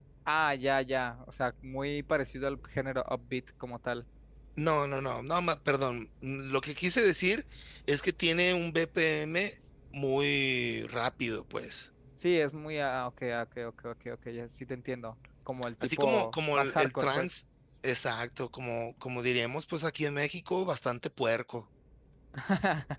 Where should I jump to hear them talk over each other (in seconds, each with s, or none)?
15.8 s